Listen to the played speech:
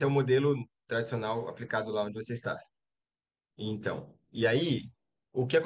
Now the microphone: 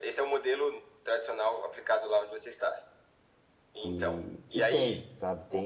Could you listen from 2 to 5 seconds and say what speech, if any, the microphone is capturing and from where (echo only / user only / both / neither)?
both